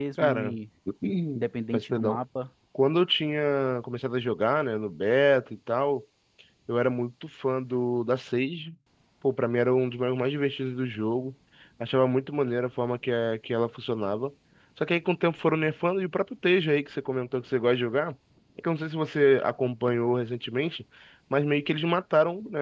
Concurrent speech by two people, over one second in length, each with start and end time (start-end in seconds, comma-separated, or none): none